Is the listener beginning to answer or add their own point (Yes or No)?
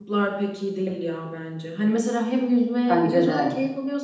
No